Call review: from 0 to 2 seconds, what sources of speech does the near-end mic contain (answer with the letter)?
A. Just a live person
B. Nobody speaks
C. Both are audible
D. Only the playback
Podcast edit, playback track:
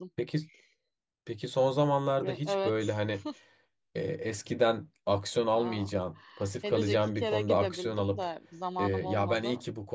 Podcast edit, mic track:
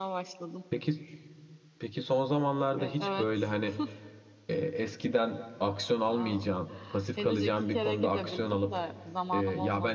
D